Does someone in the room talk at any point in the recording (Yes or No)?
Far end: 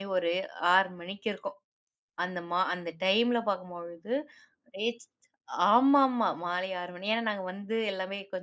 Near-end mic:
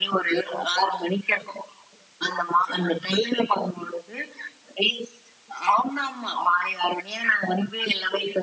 No